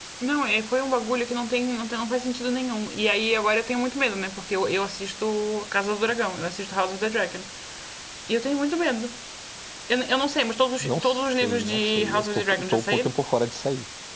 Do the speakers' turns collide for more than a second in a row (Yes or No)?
Yes